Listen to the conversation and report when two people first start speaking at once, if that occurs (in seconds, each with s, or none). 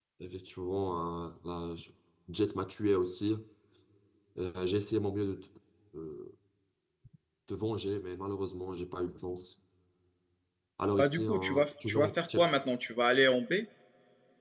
11.0 s